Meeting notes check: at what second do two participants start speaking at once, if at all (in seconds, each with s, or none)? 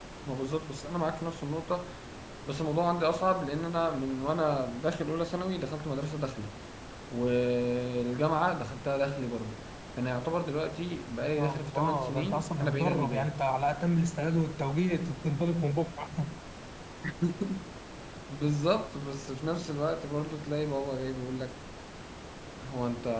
11.2 s